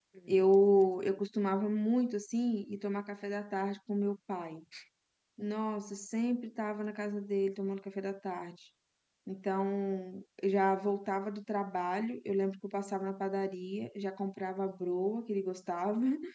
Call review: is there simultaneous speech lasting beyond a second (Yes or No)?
No